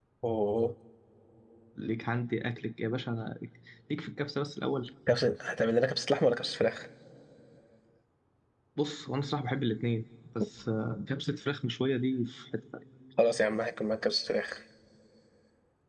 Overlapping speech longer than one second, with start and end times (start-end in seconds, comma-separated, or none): none